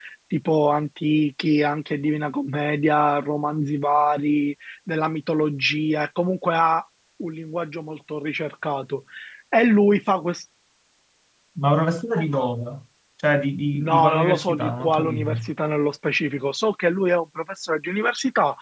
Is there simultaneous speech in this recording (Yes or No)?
Yes